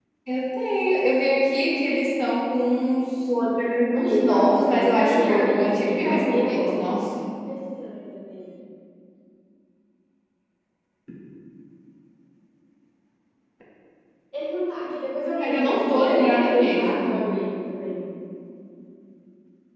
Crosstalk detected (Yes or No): Yes